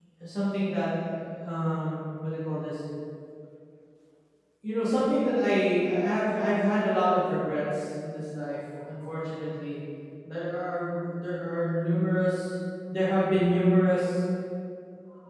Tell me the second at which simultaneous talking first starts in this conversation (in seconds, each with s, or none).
none